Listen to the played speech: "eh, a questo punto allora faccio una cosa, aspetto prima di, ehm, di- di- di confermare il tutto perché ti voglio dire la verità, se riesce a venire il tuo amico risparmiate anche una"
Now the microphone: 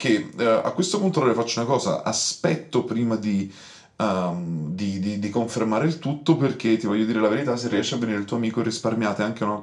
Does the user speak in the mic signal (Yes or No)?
No